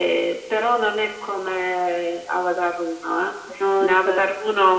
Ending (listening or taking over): listening